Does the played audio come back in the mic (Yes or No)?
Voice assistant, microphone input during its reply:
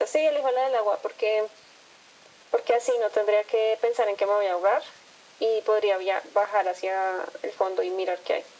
Yes